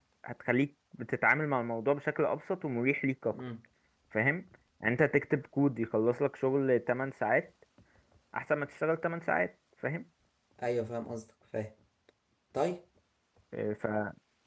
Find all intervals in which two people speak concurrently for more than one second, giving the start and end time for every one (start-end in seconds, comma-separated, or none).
none